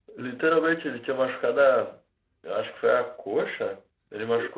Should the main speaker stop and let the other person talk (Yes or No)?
No